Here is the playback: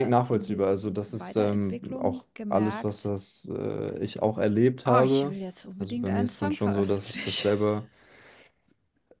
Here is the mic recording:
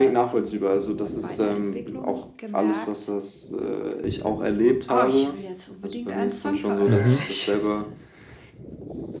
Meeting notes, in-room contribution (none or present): present